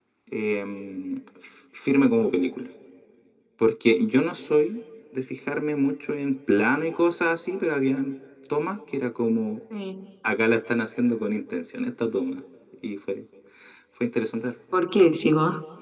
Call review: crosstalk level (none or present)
none